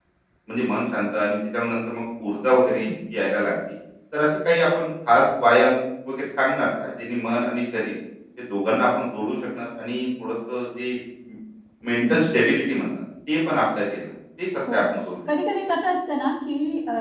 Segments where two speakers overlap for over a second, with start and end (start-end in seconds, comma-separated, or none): none